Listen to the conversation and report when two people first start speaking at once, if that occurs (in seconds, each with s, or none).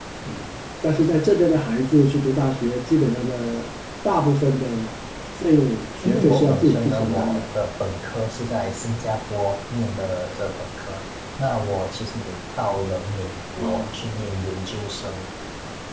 6.0 s